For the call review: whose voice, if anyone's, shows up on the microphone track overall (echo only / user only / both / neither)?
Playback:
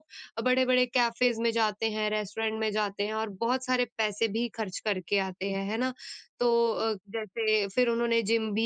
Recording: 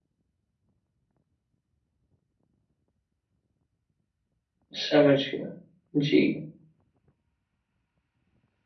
user only